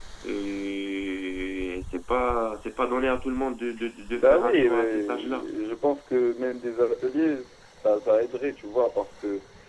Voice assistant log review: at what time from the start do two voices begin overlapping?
4.2 s

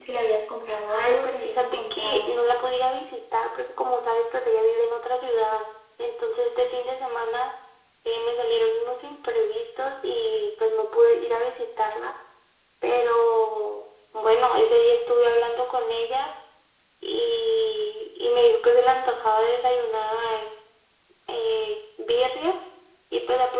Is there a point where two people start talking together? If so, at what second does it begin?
0.7 s

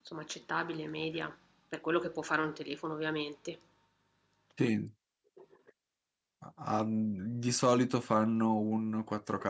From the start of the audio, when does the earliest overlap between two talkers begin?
none

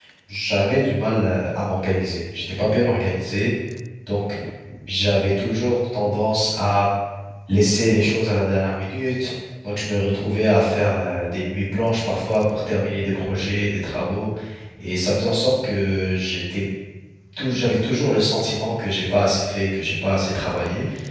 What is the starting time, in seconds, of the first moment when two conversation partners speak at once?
none

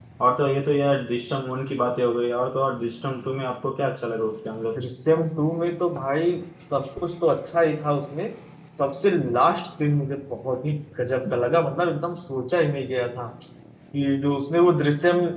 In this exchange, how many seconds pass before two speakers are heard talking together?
none

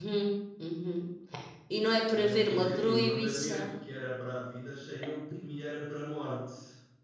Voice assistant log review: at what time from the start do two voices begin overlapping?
2.1 s

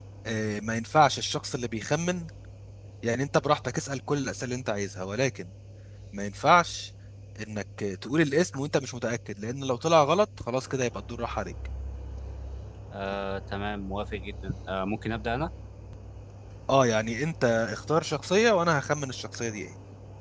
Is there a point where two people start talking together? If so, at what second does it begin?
none

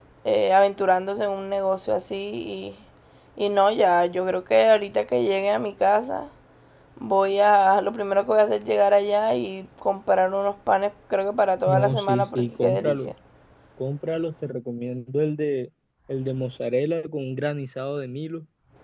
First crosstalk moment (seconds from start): 11.7 s

